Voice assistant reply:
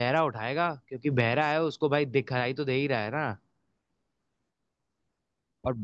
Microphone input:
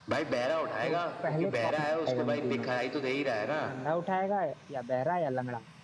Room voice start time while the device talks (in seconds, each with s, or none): 0.8 s